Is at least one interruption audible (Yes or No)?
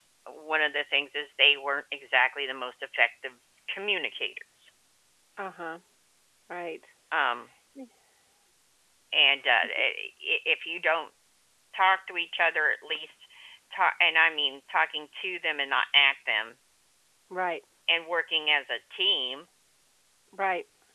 No